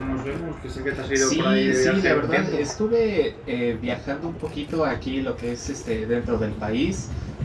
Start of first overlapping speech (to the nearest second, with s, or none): 1 s